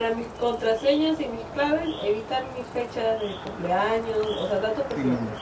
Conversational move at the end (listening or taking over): taking over